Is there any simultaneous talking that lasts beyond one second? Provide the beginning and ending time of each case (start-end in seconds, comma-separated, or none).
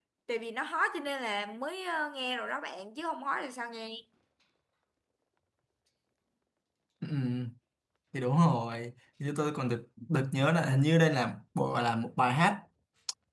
none